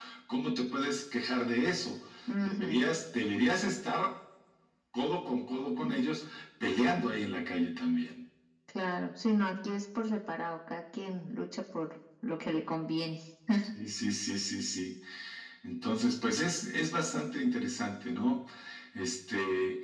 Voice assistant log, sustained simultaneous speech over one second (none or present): none